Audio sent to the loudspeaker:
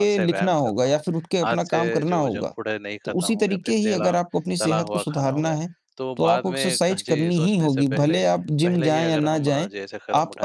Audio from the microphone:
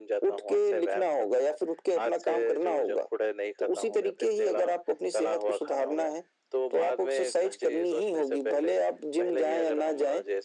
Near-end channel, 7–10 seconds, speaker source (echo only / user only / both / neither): echo only